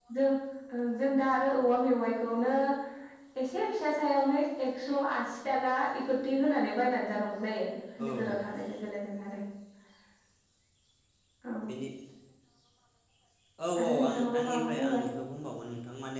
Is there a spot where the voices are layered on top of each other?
Yes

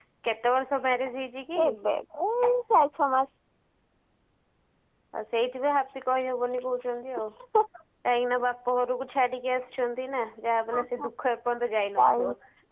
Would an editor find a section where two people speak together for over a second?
No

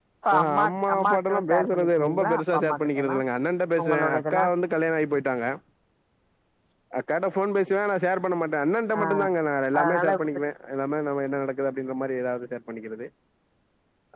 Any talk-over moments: Yes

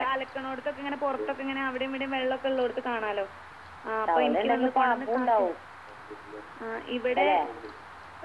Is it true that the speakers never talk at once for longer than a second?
No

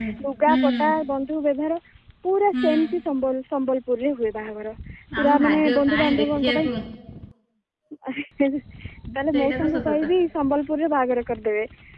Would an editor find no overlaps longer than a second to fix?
No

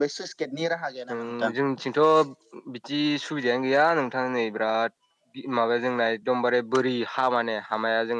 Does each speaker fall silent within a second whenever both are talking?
Yes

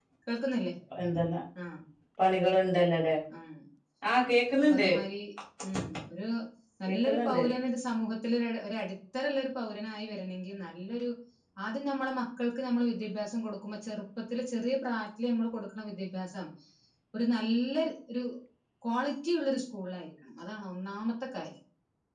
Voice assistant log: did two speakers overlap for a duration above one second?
No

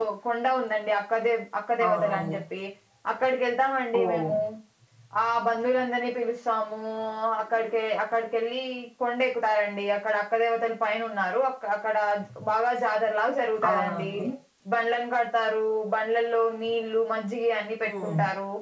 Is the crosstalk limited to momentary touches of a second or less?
Yes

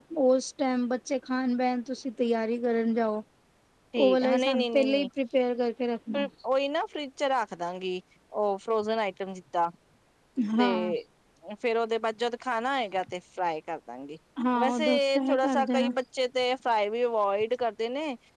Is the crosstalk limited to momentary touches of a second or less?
No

